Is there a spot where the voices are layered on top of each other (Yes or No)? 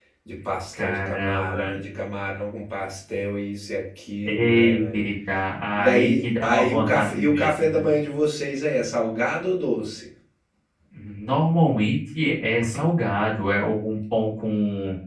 Yes